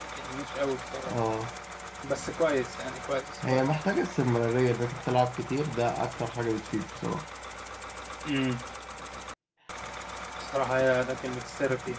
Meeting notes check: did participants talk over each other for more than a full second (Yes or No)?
No